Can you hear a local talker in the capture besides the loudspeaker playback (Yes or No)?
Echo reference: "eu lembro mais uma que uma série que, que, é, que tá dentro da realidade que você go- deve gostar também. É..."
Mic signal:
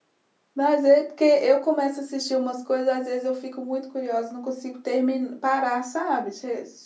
Yes